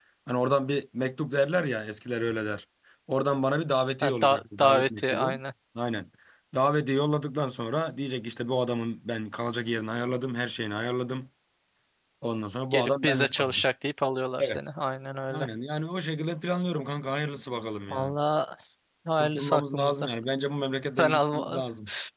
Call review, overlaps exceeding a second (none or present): present